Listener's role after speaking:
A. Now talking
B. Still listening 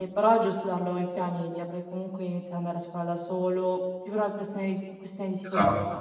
A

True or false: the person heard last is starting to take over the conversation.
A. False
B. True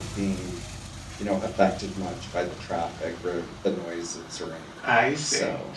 B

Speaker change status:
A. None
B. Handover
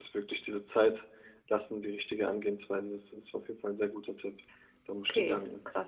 B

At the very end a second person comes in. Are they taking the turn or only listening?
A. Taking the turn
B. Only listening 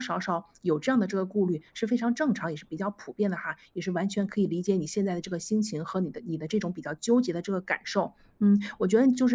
B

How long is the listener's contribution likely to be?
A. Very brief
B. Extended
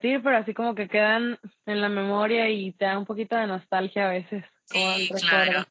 B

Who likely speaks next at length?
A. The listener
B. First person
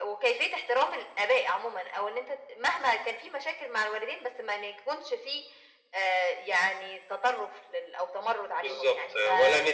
A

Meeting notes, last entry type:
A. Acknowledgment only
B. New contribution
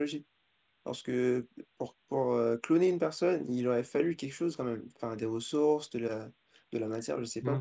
B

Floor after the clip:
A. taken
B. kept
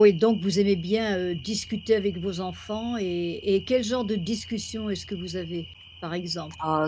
A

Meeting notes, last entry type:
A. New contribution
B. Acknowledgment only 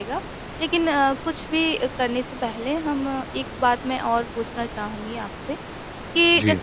B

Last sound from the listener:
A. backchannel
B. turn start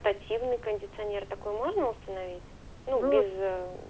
A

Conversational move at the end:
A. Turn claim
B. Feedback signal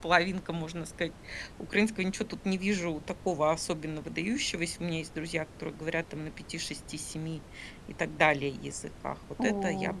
A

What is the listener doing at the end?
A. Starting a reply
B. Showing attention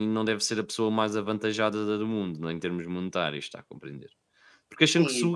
A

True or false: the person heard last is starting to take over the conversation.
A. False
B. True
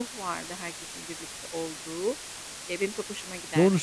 B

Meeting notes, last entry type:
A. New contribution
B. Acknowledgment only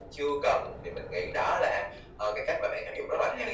A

